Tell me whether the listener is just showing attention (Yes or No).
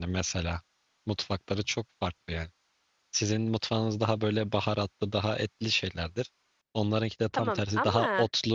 Yes